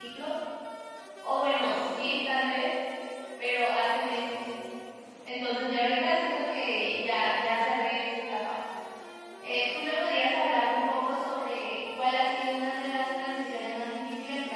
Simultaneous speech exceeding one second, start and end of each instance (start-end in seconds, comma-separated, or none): none